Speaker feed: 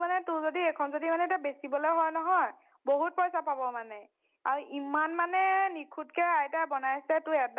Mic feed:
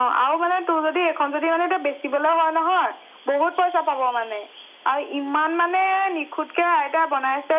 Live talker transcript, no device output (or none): none